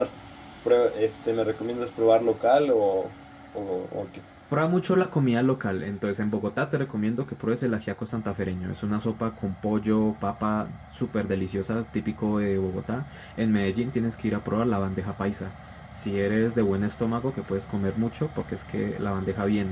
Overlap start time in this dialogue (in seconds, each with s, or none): none